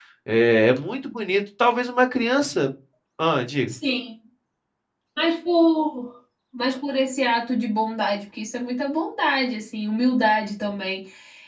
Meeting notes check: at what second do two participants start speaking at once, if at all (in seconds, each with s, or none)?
none